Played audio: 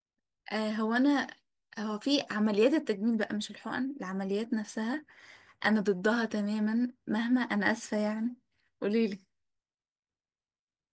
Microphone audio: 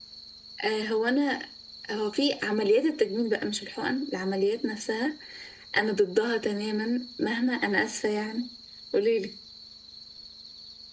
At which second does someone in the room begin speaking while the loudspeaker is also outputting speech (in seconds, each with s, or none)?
none